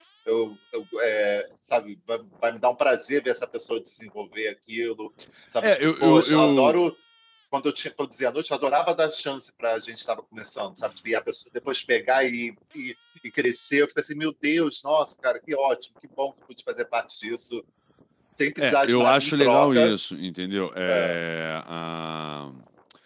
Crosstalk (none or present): present